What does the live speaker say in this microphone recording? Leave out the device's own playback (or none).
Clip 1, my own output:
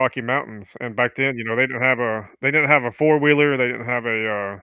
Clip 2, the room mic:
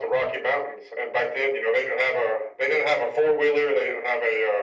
none